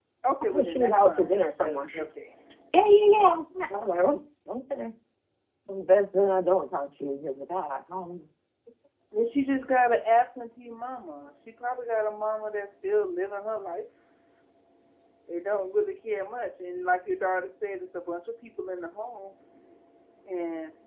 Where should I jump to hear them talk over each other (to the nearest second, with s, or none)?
1 s